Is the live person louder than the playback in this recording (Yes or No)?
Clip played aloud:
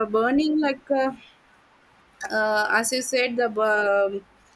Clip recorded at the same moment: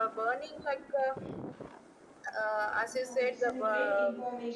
No